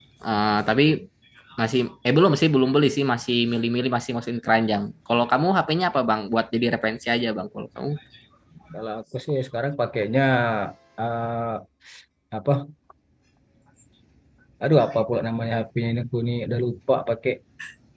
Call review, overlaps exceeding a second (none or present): none